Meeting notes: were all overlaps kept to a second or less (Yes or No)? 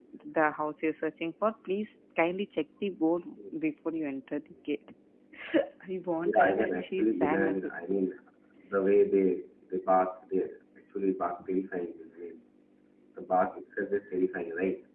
No